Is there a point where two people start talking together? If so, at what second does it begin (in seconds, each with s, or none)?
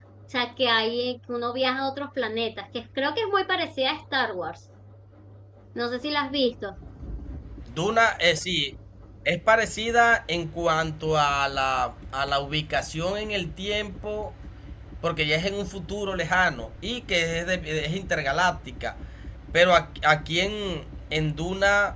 none